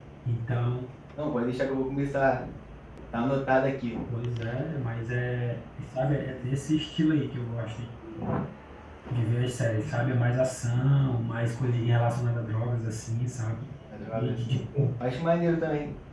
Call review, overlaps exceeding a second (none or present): none